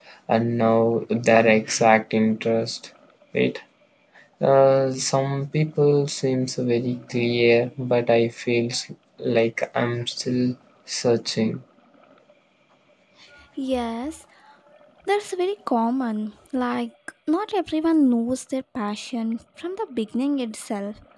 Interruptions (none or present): none